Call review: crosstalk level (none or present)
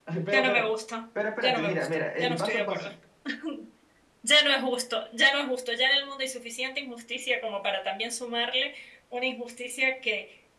present